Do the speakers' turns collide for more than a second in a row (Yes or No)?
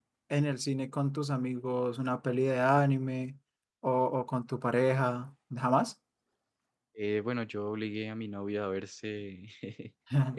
No